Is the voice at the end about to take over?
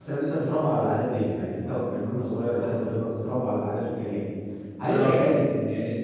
No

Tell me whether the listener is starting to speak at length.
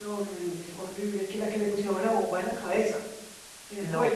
Yes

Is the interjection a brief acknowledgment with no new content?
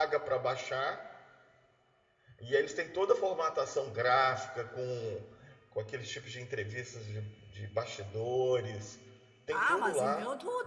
No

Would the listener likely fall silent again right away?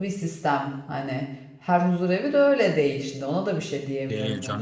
No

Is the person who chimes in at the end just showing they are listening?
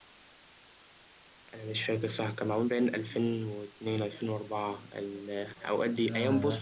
Yes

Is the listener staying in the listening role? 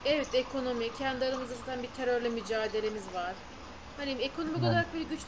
Yes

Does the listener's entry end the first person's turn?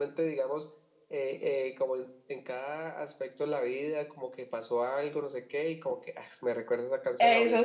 Yes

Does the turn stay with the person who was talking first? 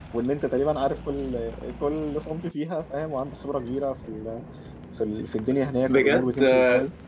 No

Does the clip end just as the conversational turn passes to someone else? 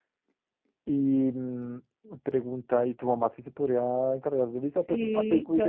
Yes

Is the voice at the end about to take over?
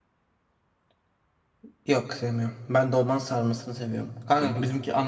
No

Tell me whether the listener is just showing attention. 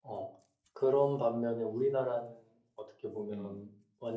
Yes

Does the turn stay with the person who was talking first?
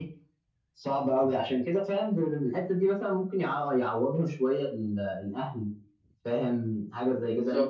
Yes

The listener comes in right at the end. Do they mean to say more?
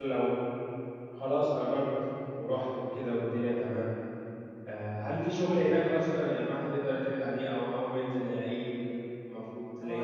Yes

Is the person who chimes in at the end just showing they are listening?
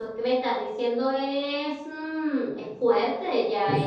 Yes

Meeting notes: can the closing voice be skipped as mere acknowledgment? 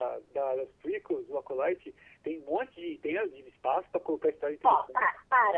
No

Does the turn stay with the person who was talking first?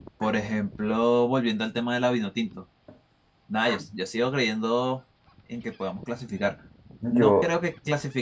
Yes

